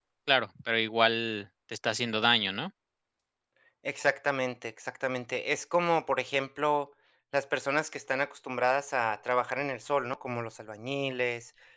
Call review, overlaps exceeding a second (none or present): none